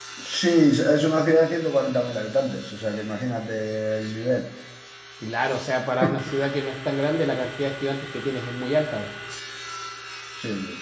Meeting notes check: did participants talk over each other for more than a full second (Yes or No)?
No